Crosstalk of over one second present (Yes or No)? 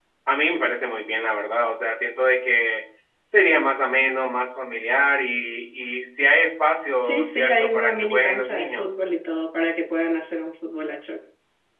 Yes